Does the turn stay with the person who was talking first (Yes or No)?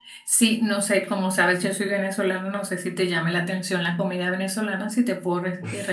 No